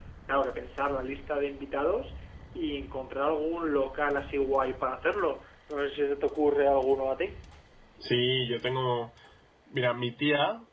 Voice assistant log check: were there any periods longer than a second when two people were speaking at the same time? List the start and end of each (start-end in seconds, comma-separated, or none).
none